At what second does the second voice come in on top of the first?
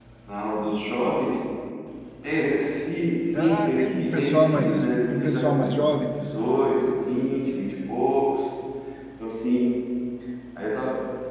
3.3 s

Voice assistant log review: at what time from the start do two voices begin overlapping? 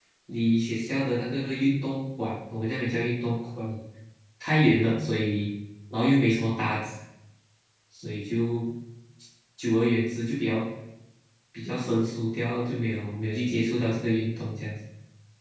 none

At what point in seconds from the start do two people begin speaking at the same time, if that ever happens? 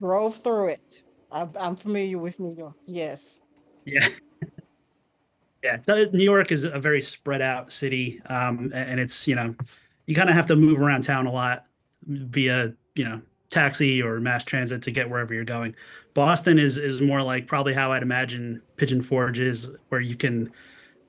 none

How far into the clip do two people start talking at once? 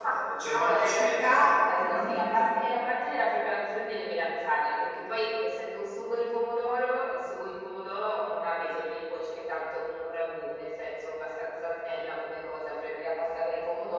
0.5 s

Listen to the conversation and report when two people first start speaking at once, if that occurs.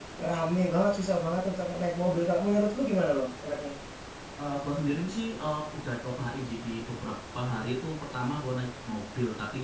none

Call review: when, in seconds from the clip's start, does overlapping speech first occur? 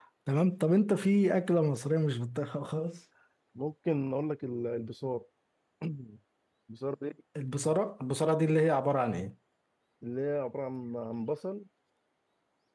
none

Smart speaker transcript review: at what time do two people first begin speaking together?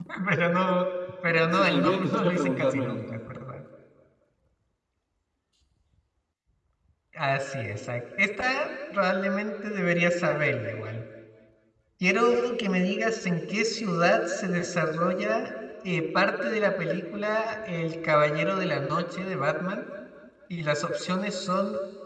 1.3 s

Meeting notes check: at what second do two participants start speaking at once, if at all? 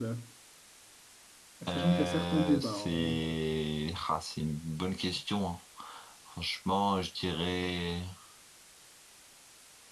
1.8 s

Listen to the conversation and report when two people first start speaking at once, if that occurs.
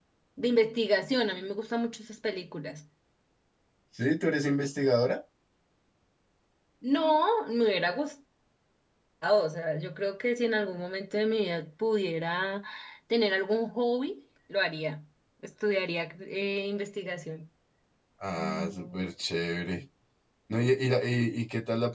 none

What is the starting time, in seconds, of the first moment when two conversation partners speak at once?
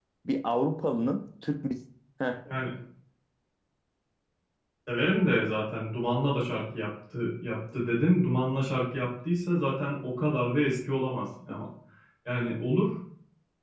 none

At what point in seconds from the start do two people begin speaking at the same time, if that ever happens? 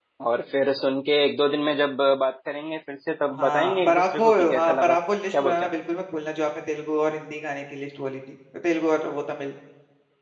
3.3 s

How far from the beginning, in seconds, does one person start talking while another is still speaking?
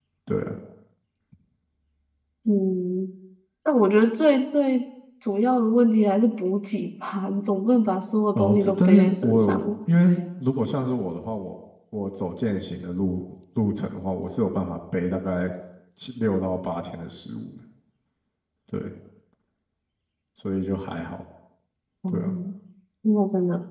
8.3 s

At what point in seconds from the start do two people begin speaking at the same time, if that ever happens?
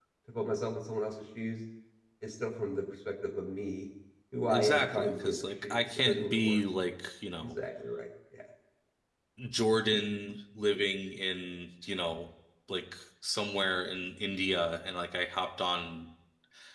4.5 s

